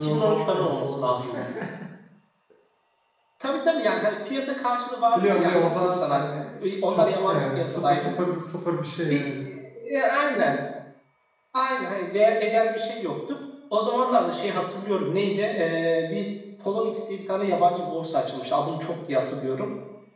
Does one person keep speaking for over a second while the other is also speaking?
Yes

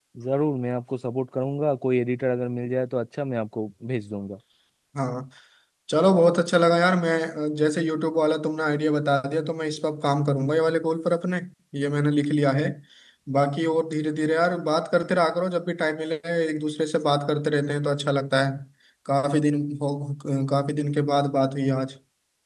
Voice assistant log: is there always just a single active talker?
Yes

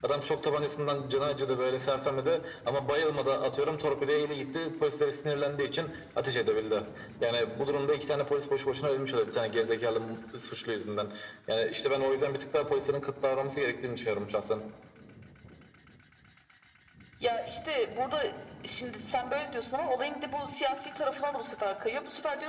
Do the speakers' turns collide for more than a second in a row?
No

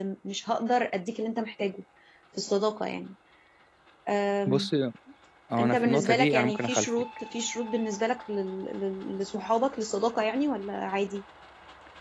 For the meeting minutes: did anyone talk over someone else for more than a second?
Yes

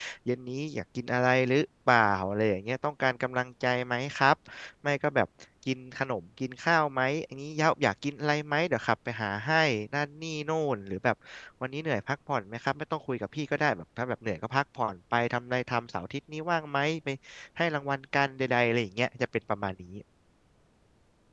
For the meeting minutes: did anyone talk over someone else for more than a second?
No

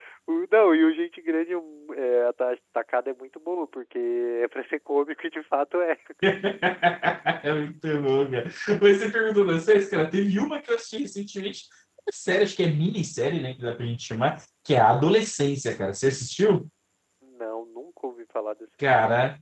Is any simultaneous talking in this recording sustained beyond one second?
No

